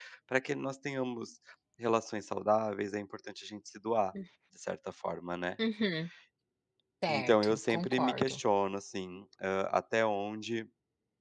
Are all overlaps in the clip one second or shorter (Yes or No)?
No